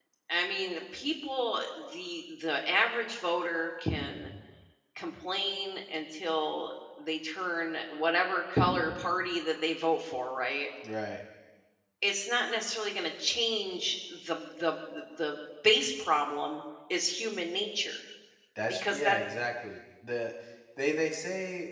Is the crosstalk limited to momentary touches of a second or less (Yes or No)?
Yes